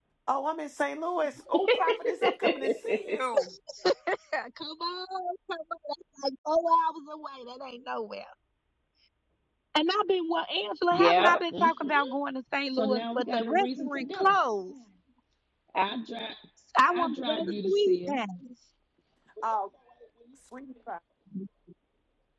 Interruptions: present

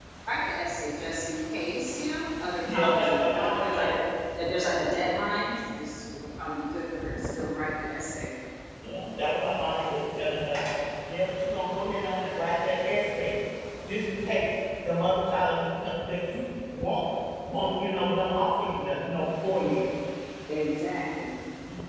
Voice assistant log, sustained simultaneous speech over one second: present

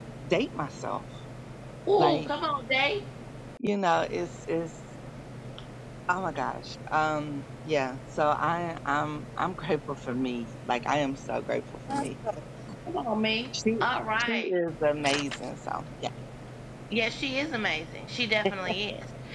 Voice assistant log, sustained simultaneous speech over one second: none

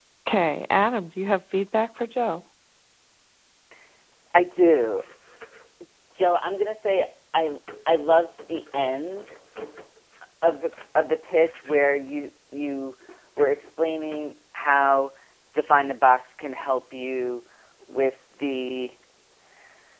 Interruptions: none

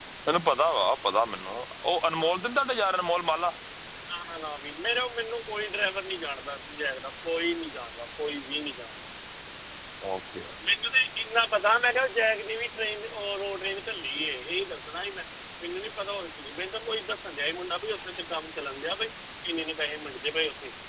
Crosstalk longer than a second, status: none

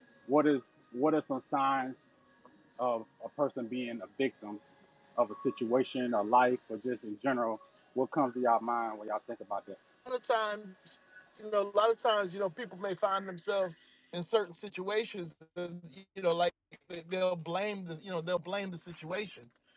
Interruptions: none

